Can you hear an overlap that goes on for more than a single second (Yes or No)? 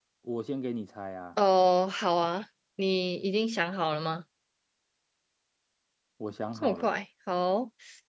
No